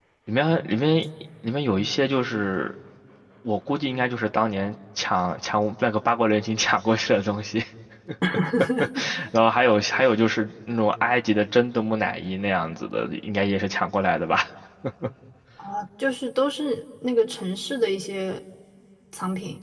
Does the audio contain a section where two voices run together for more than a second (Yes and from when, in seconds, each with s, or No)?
No